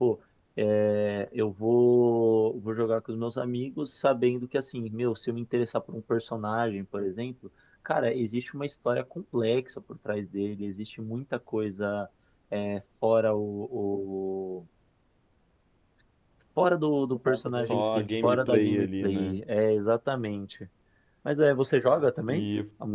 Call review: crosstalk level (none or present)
present